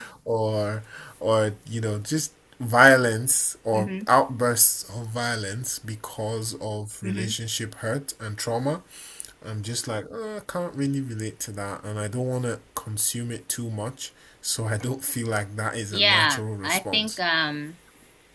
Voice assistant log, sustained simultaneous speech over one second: present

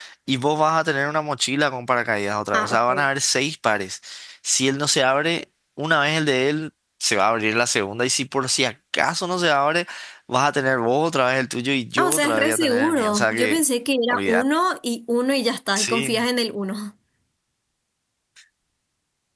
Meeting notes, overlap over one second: present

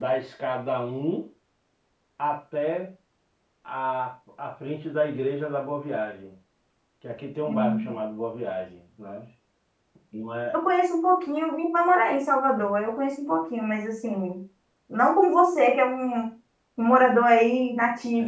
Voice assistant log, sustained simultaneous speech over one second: none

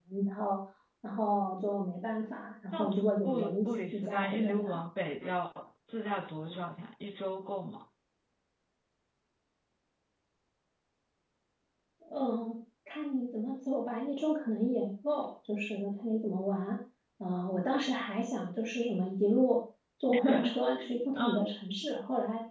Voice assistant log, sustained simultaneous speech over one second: present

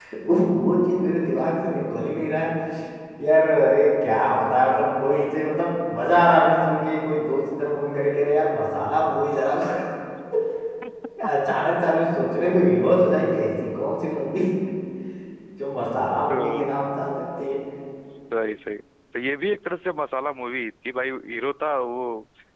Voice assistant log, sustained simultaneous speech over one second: none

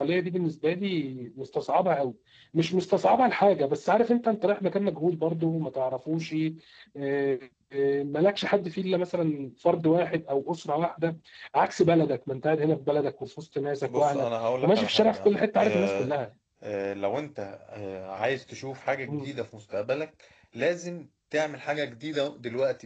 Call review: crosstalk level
present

